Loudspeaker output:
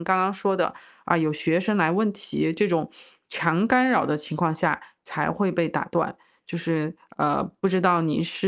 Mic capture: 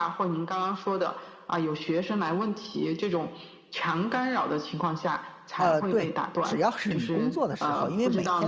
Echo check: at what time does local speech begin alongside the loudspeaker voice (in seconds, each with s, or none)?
5.6 s